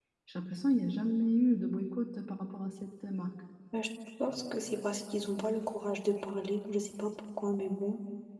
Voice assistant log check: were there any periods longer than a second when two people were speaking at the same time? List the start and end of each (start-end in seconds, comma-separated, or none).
none